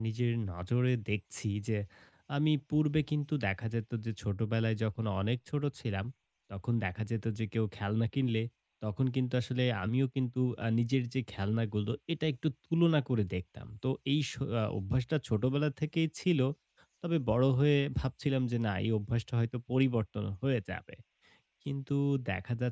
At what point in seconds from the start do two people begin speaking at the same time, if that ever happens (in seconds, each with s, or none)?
none